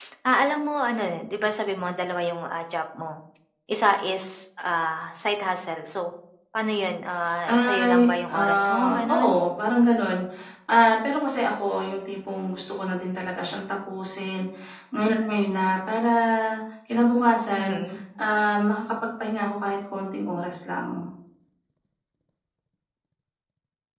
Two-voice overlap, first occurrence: 7.5 s

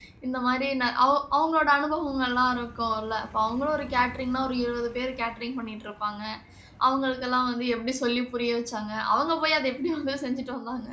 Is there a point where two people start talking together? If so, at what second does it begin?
none

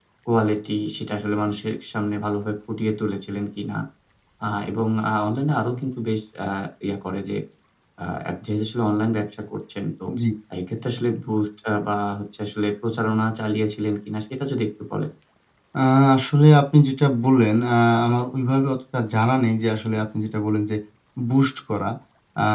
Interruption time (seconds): none

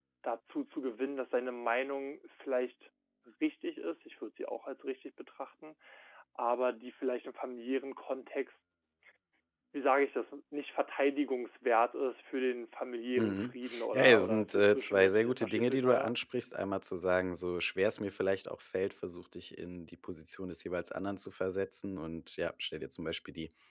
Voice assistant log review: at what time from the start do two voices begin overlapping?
13.2 s

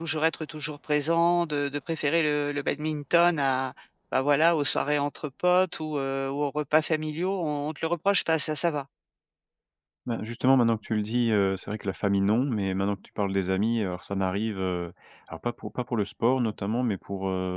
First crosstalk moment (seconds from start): none

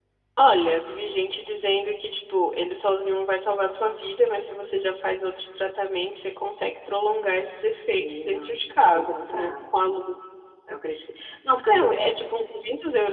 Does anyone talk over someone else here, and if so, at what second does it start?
7.9 s

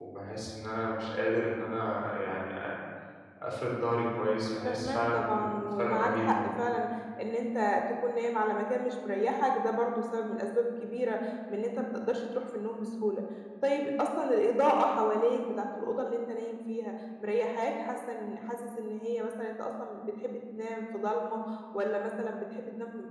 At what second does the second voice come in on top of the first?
4.6 s

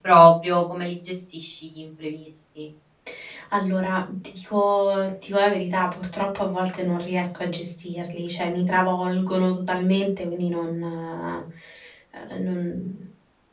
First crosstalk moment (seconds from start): none

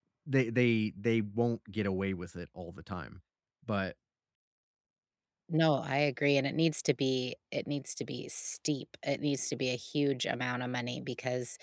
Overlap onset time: none

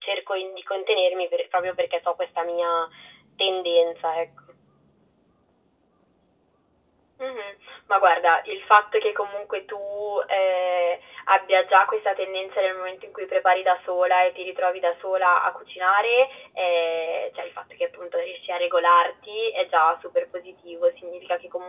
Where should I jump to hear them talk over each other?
none

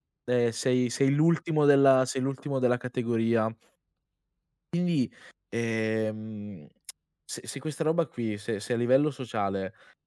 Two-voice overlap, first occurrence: none

